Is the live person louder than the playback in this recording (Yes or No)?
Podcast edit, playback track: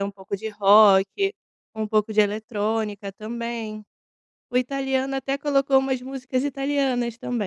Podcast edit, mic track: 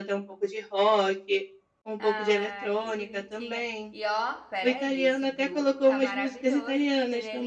No